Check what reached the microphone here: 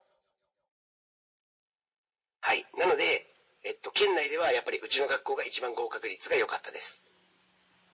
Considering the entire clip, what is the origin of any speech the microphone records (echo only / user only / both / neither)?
echo only